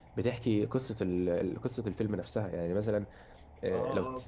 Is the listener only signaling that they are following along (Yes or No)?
No